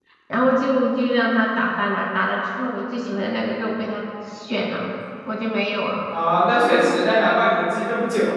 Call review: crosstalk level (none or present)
none